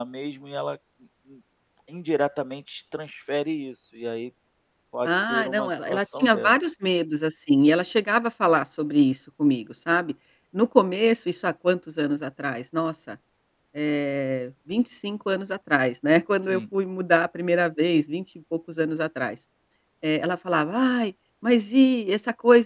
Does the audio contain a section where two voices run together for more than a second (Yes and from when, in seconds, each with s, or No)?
Yes, from 5.0 s